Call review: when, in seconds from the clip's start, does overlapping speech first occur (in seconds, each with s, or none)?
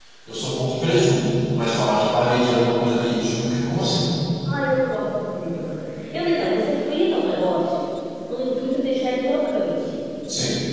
none